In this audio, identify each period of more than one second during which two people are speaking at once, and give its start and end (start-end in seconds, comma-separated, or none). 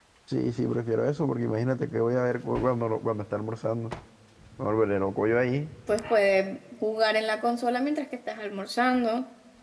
none